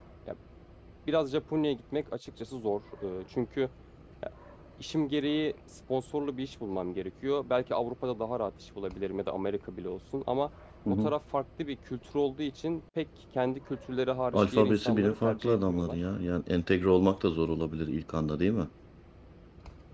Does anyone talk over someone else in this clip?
Yes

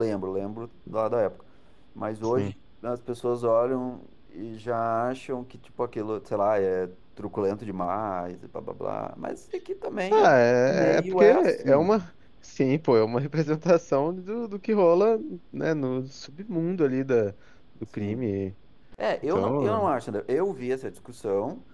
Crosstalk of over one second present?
Yes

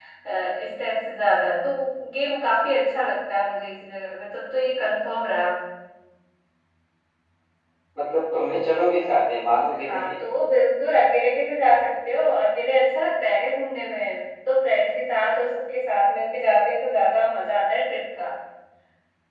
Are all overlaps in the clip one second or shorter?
Yes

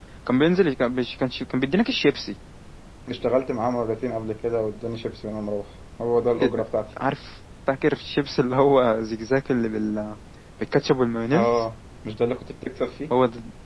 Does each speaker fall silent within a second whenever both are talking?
Yes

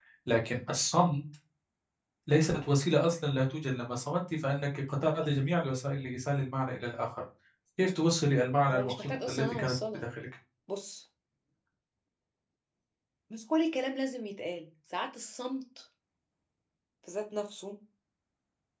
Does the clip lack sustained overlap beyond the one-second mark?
No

